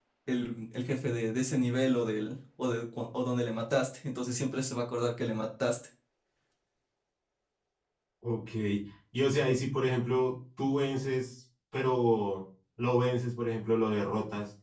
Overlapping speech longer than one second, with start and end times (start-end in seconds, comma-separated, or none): none